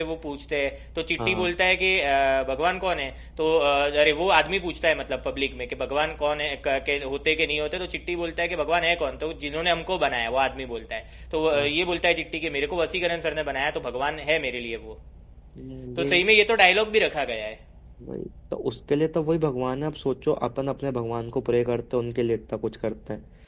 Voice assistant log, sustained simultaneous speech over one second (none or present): none